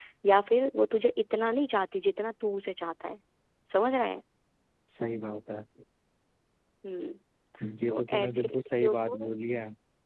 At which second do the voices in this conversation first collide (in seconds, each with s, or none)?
7.9 s